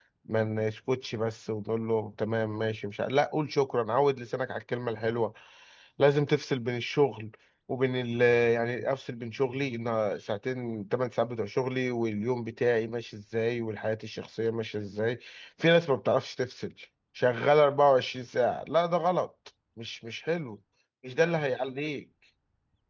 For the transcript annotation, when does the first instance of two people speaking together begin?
none

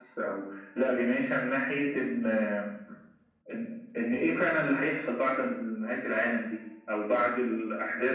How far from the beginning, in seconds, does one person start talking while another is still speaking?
none

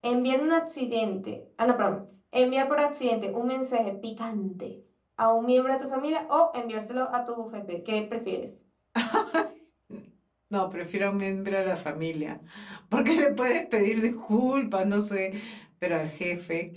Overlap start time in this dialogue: none

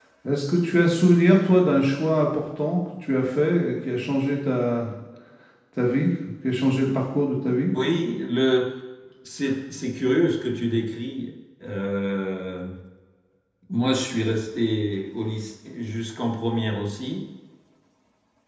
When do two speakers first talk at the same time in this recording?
none

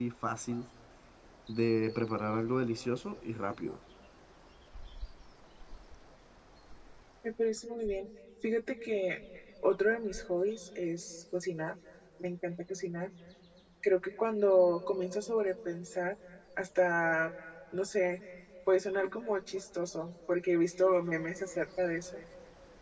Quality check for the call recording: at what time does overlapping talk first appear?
none

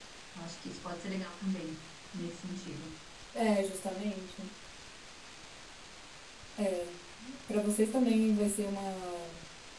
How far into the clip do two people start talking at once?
none

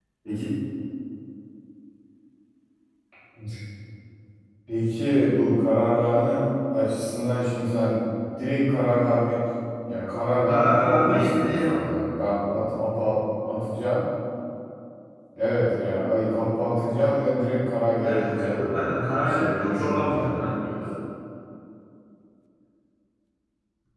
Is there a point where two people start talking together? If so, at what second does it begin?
10.5 s

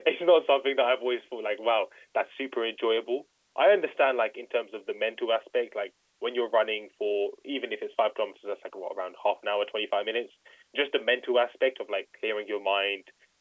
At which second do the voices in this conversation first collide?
none

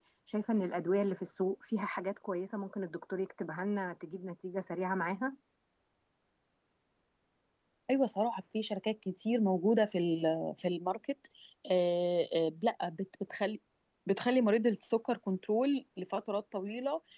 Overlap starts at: none

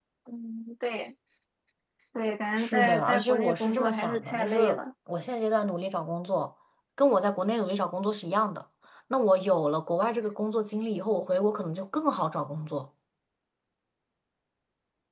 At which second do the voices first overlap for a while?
2.6 s

